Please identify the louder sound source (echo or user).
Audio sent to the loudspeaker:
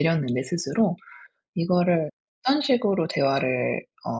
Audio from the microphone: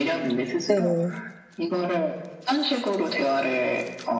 user